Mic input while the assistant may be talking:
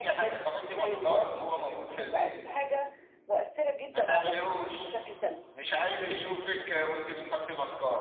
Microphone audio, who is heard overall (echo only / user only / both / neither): both